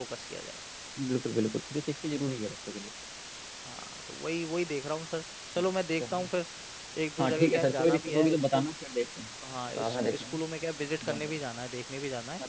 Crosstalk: present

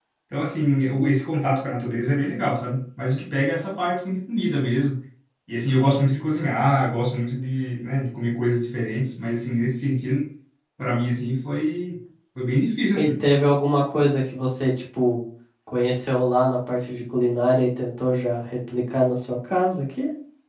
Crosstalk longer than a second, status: none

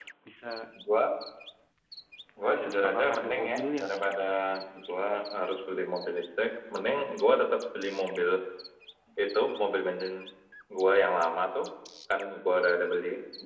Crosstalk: present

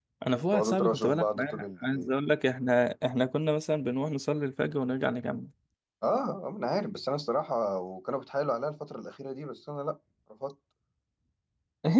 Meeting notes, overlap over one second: present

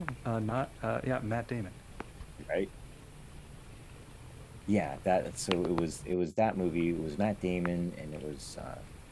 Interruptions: none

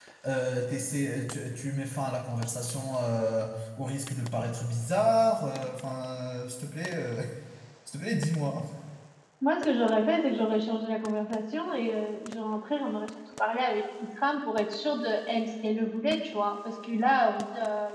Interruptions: none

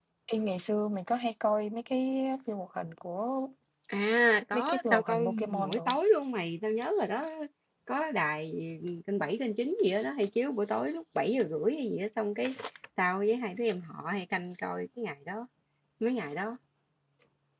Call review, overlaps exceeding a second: present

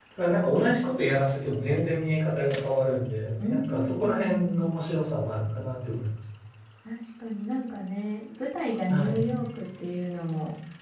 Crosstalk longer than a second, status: present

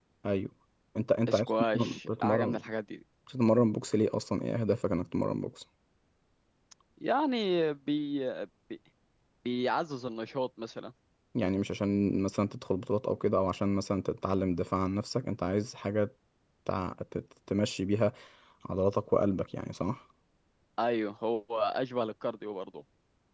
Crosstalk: present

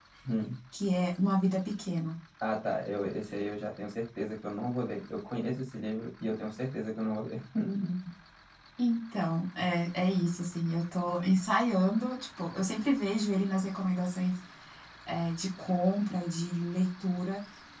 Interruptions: none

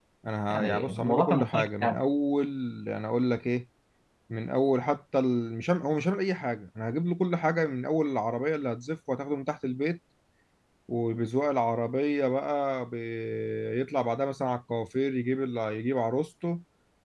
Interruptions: present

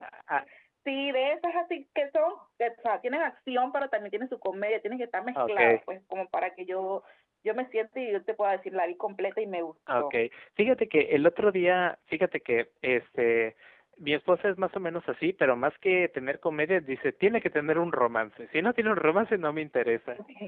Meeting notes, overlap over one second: none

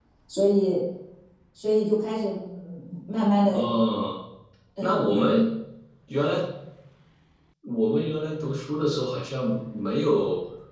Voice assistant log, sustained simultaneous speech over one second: none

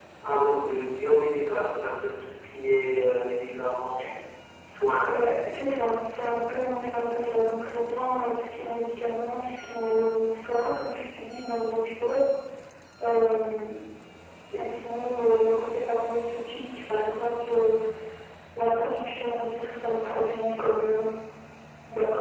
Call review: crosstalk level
none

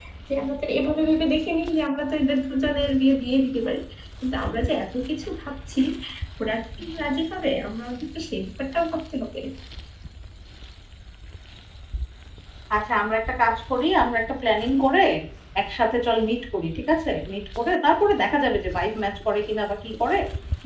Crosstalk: none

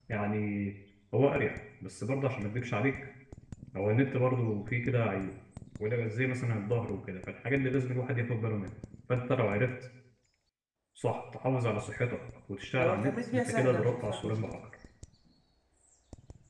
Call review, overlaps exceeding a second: present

